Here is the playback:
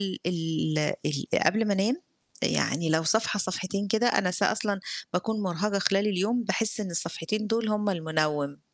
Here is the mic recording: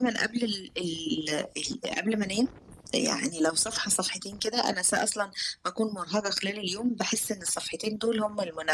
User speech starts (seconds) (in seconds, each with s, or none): none